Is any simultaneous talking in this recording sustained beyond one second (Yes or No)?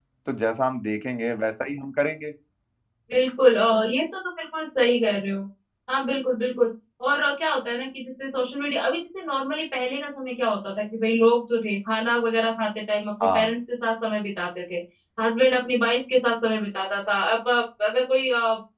No